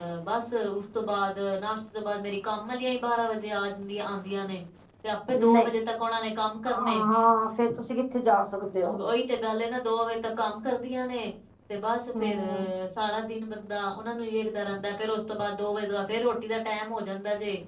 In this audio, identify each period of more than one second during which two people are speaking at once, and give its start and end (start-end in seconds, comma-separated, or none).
none